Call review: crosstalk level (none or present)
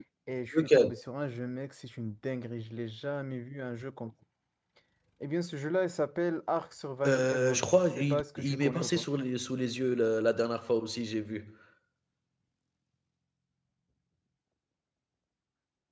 present